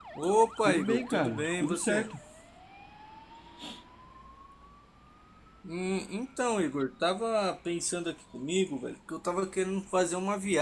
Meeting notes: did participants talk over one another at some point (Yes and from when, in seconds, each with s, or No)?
Yes, from 0.7 s